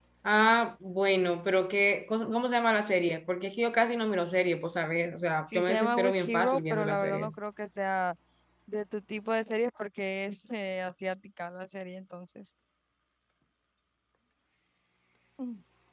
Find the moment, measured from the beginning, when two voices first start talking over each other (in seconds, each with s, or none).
5.5 s